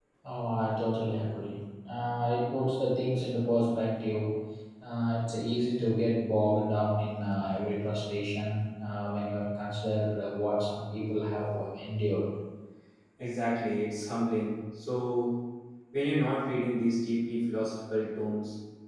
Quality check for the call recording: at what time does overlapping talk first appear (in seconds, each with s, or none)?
none